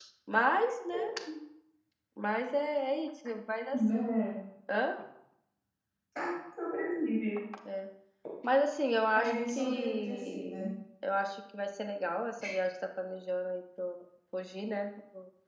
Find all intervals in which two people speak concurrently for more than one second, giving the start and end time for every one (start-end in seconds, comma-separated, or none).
9.2-10.7